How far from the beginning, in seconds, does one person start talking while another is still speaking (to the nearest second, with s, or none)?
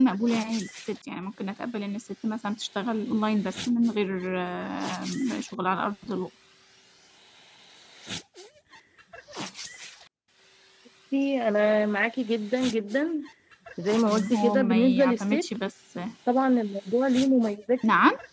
14 s